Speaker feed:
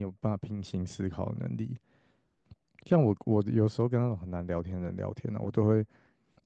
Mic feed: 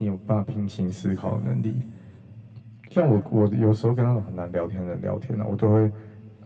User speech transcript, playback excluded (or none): none